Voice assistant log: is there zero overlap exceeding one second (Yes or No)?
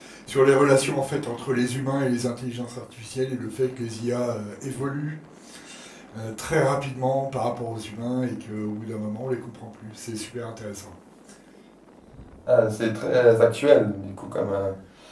Yes